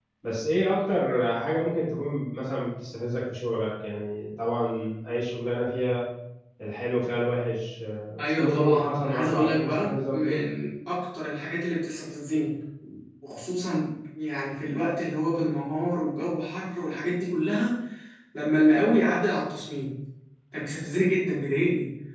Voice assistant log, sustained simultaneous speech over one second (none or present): present